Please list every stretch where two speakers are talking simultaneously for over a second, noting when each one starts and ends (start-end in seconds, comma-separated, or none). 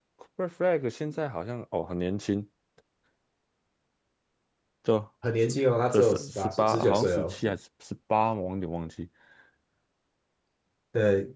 5.9-7.4